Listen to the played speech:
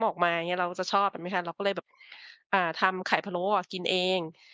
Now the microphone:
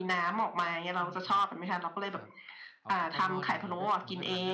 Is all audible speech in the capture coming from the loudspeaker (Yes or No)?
No